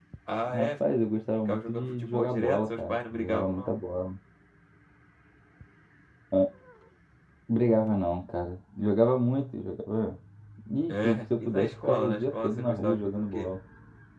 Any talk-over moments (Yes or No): Yes